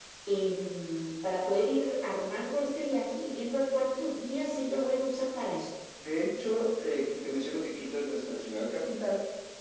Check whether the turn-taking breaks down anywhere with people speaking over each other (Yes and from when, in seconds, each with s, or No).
No